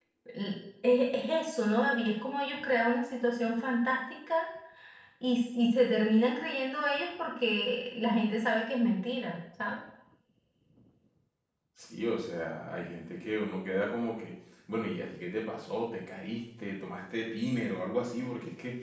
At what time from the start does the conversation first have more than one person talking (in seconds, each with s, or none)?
none